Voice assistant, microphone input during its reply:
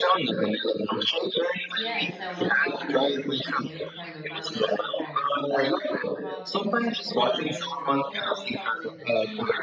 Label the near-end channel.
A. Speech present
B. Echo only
A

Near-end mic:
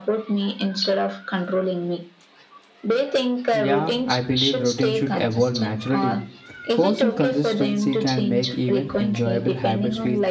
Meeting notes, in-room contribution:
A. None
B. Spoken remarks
B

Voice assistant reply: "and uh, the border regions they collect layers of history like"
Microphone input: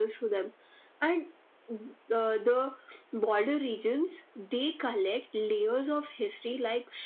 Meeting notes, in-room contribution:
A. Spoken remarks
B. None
B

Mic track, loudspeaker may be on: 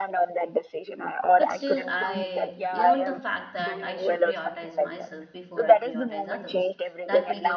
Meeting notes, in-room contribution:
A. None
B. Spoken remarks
B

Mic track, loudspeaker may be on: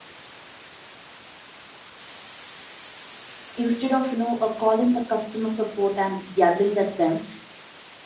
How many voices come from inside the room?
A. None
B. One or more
B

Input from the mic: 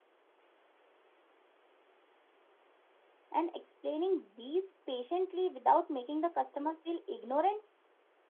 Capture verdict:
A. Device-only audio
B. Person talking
B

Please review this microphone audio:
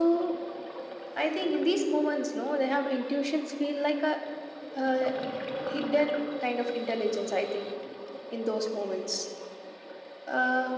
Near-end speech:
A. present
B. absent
B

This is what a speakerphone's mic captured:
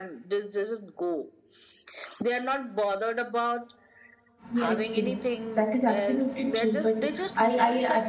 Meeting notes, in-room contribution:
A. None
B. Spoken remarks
B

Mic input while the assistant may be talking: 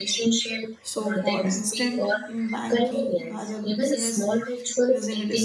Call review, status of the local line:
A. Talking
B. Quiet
A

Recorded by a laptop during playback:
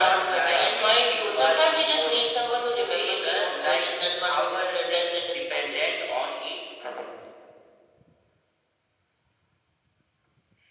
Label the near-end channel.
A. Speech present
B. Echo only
B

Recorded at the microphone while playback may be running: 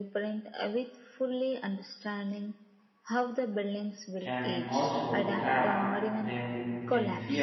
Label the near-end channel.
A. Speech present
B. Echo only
A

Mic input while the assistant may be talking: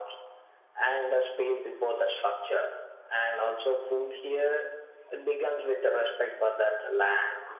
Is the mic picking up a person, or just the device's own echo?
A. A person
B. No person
B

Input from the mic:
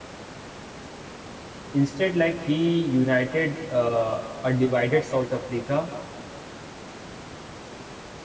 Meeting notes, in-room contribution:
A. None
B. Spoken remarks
B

